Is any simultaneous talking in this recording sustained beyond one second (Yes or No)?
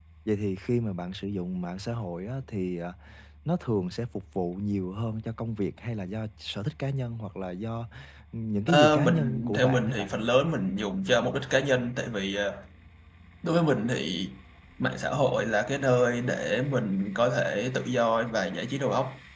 Yes